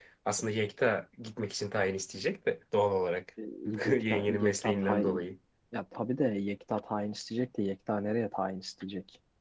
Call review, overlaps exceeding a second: present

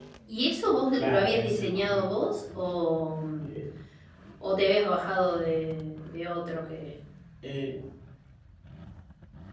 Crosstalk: present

